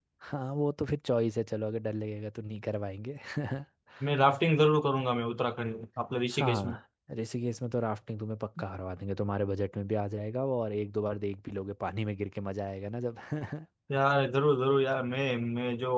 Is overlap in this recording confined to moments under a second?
Yes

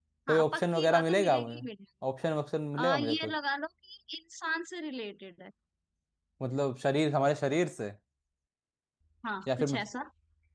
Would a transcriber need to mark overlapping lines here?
Yes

